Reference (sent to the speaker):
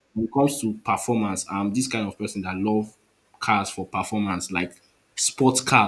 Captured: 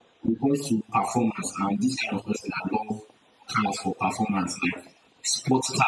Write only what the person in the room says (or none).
none